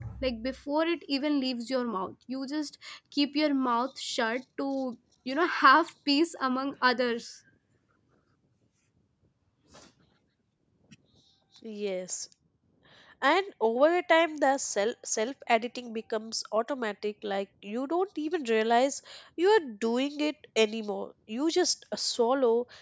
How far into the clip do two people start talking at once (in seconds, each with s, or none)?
none